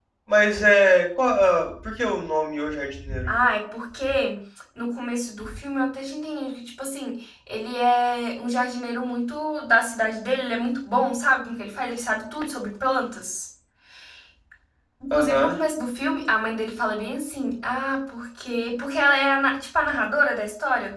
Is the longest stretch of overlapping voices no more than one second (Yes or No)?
Yes